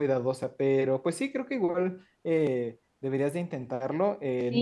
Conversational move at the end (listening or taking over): listening